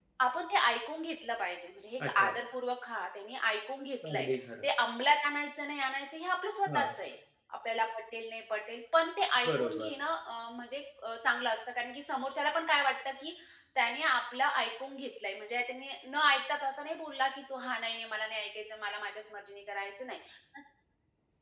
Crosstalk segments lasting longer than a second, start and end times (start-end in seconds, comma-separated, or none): none